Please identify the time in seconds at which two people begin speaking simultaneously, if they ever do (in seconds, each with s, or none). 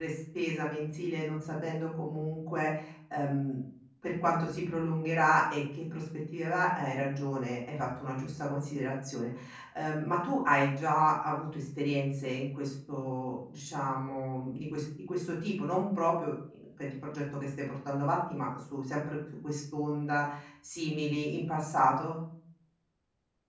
none